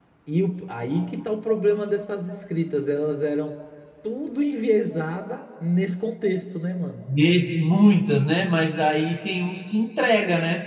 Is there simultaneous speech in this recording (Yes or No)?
No